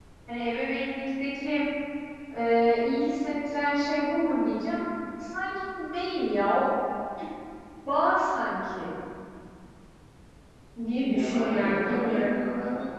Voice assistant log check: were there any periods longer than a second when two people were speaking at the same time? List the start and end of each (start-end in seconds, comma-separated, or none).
11.1-12.4